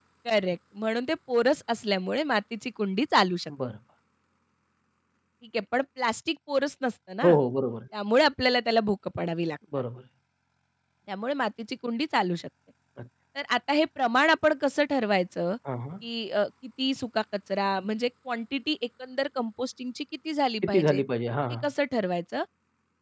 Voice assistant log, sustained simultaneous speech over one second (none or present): none